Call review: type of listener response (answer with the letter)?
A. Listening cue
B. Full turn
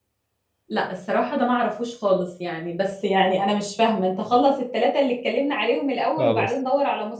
A